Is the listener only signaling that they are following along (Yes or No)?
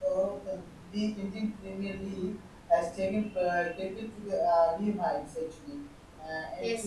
No